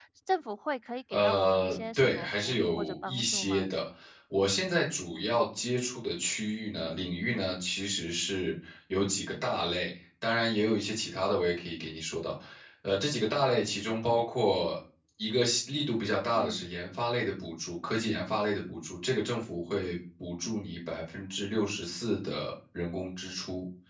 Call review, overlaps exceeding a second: present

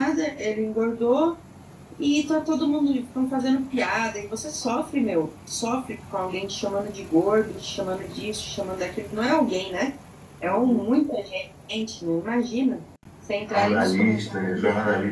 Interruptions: present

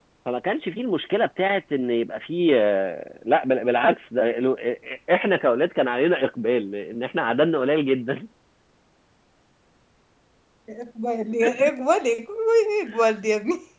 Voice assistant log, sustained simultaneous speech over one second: none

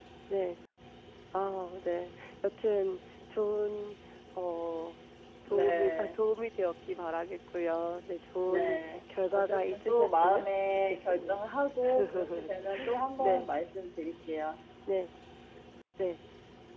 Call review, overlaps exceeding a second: present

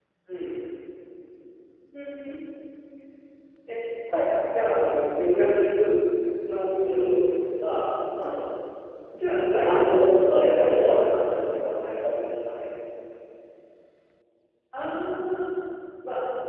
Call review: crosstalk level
present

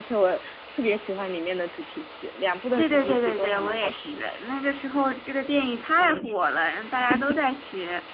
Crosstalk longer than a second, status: present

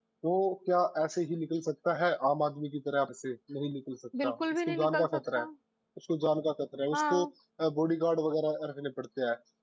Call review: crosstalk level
present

